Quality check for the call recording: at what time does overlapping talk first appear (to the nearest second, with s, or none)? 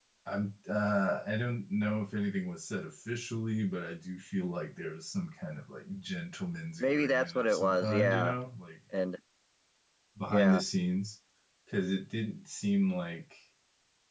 7 s